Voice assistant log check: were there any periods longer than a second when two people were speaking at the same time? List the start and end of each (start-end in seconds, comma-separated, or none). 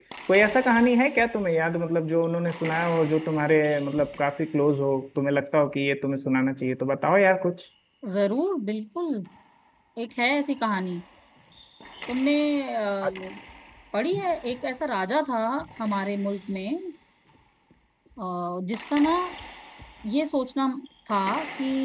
none